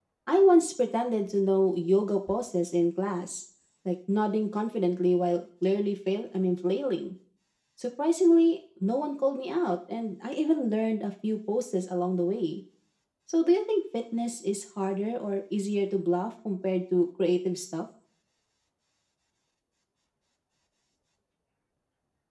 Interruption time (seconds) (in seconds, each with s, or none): none